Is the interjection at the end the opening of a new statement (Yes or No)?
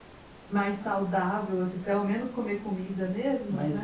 Yes